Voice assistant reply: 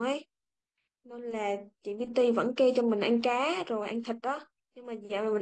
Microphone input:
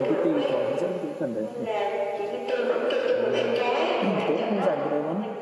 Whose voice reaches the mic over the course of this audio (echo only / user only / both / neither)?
both